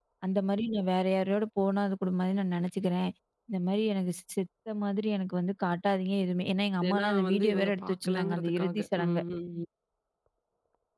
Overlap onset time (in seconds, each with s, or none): 6.8 s